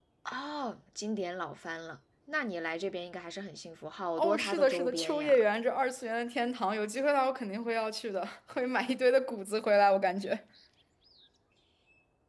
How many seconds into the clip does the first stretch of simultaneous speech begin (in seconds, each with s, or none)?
4.2 s